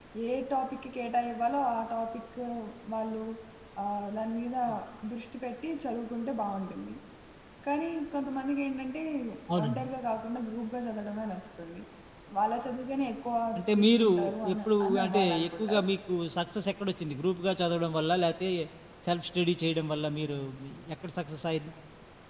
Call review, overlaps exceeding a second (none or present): present